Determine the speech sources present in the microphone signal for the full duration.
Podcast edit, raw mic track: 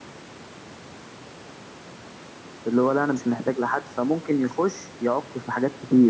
user only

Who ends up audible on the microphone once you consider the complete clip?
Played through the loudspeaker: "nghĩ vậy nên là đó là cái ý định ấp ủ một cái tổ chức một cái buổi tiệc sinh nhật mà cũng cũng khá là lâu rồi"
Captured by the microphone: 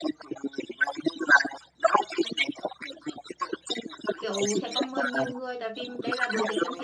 both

